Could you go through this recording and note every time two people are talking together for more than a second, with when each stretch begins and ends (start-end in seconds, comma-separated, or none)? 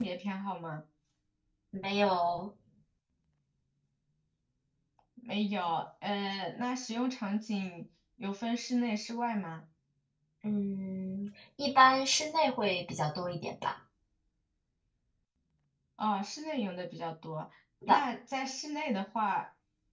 none